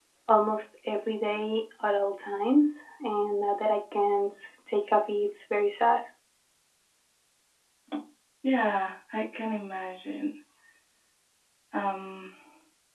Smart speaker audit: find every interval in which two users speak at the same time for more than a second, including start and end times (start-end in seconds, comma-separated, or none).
none